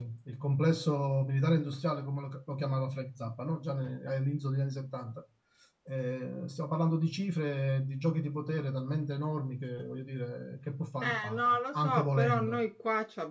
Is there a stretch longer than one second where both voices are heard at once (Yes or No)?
Yes